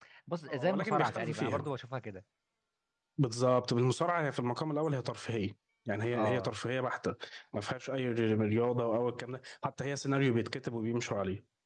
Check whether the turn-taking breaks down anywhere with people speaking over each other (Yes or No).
Yes